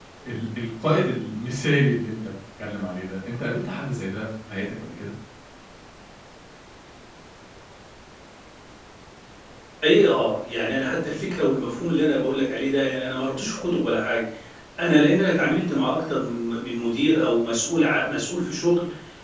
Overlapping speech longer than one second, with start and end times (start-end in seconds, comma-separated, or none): none